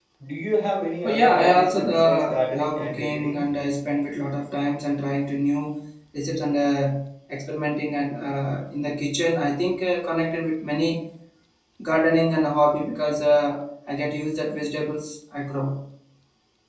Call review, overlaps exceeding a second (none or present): present